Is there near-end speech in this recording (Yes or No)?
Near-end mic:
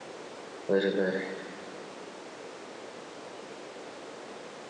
Yes